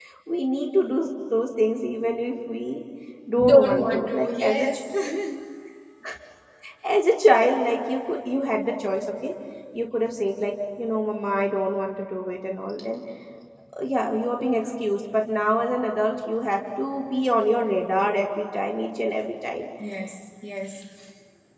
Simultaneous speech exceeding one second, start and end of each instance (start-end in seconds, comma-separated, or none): 3.5-4.7